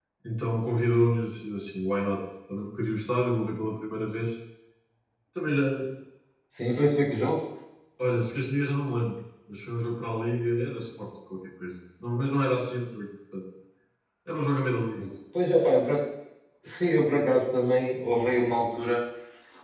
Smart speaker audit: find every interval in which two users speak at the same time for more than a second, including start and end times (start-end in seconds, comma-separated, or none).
none